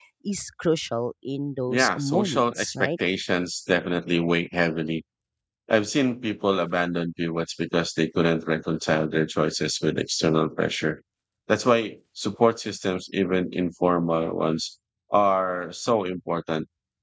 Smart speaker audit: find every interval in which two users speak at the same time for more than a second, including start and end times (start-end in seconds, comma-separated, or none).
1.7-2.9